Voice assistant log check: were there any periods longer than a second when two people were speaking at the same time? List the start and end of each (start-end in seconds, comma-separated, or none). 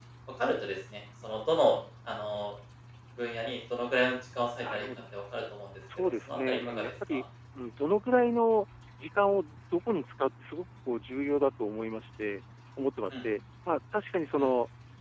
6.0-7.2